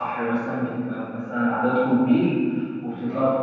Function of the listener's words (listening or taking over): listening